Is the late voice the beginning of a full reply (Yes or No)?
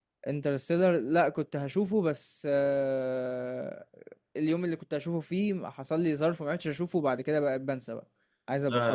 Yes